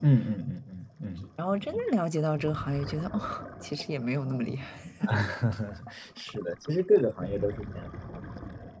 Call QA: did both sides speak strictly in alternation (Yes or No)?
Yes